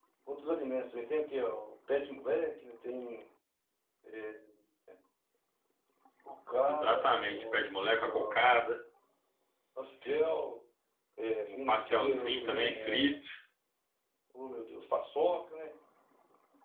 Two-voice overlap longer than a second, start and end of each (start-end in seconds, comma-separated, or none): 6.7-8.5, 11.5-13.1